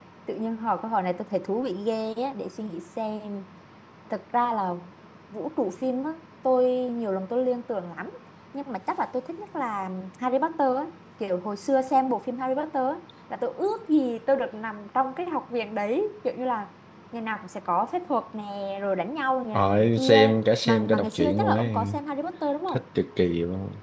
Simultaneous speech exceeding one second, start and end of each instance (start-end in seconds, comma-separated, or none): 19.5-22.0